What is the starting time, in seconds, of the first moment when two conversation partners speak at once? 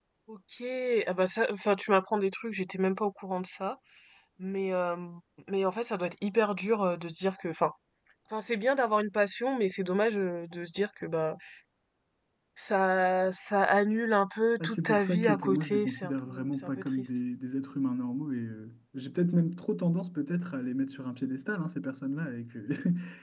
15 s

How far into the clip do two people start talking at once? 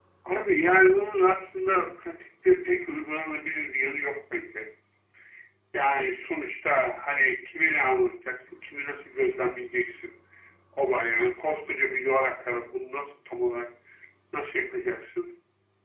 none

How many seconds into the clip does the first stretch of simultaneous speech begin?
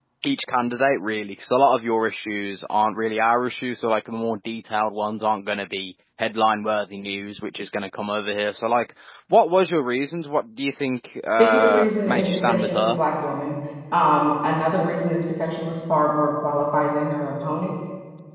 11 s

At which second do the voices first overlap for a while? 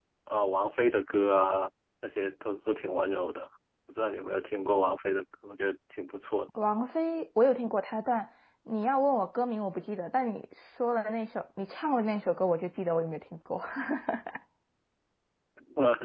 none

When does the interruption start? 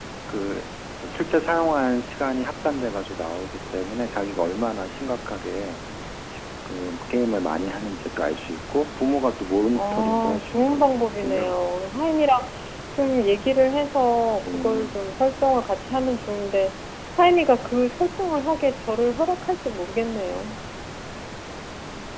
10 s

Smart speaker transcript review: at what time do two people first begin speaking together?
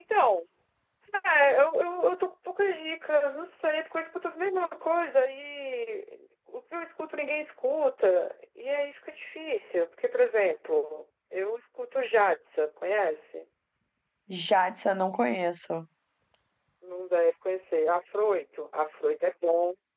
none

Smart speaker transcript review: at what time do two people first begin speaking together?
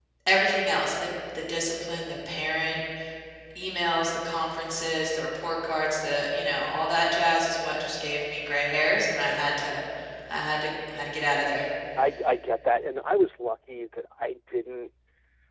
none

